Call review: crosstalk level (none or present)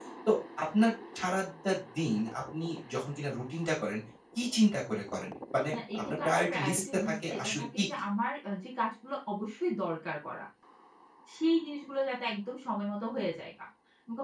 present